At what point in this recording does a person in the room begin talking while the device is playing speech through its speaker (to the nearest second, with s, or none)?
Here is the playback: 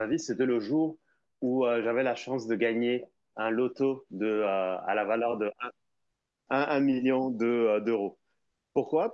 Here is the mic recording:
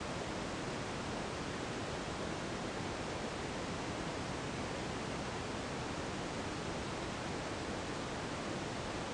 none